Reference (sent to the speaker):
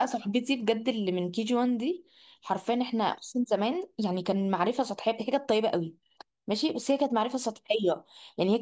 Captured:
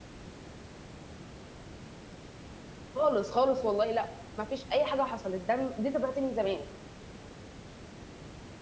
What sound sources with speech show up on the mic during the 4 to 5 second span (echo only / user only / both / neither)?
user only